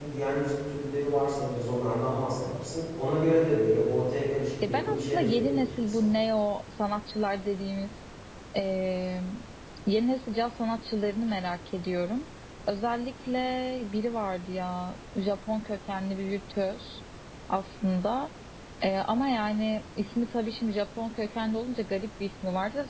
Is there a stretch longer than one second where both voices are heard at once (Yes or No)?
Yes